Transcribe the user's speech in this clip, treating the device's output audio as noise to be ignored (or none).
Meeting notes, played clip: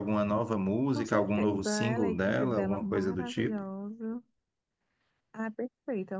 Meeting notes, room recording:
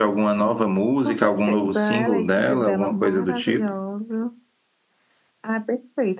none